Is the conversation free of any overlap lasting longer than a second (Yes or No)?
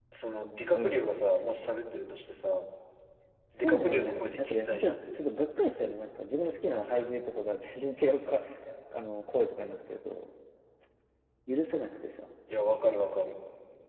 No